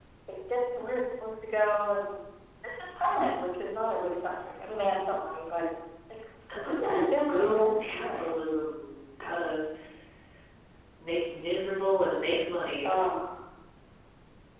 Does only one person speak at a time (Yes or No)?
No